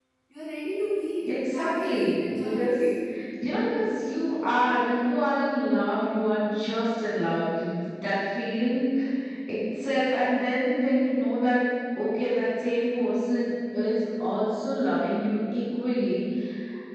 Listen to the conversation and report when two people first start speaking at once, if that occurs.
1.3 s

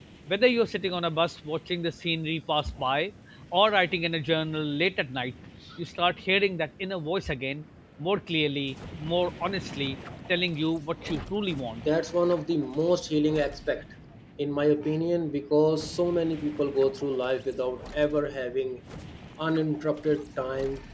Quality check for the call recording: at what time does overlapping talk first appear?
none

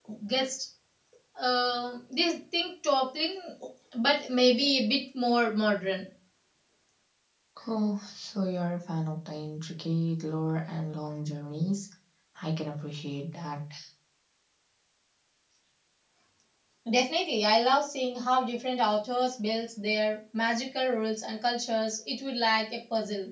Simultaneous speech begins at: none

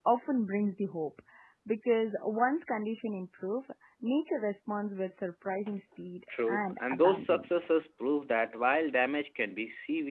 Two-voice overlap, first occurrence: 6.3 s

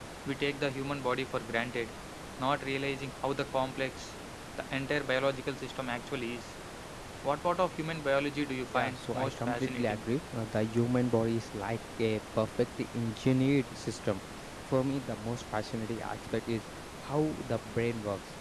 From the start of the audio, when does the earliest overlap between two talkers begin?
8.7 s

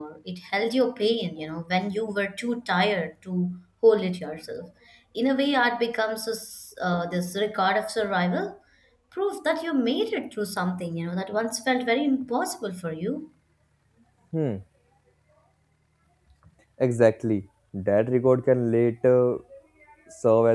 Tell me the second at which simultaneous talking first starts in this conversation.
none

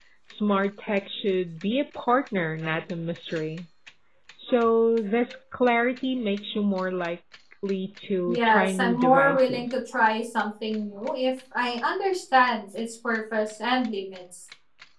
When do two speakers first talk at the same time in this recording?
8.3 s

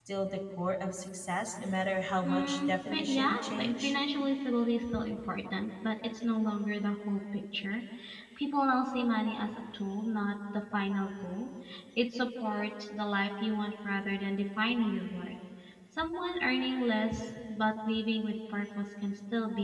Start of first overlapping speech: 2.2 s

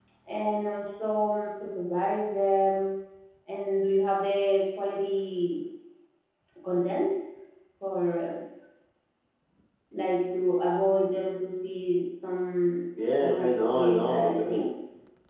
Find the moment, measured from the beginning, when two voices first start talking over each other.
13.2 s

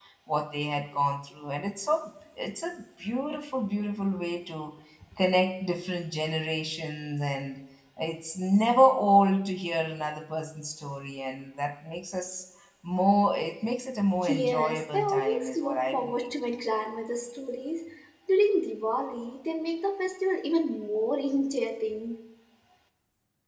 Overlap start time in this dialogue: 14.2 s

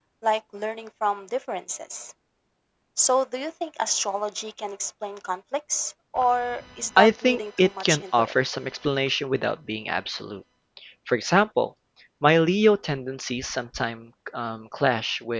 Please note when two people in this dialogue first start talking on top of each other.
7.0 s

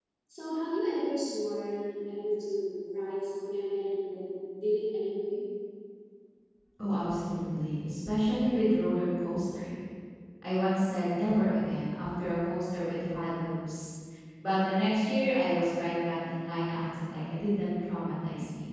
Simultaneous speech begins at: none

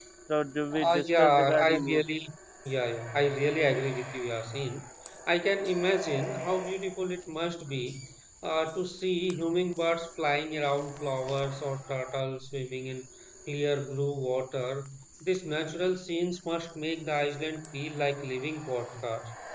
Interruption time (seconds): 0.7 s

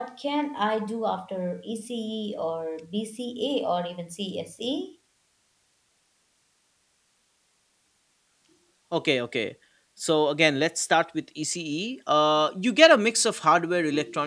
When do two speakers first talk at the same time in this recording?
none

